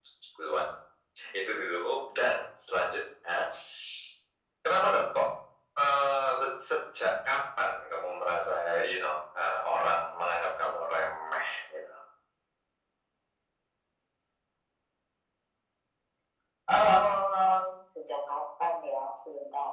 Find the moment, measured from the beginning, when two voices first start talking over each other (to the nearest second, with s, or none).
none